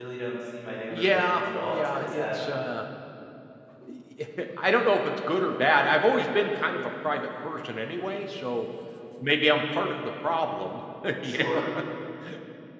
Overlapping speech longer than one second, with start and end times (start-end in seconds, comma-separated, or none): 0.9-2.4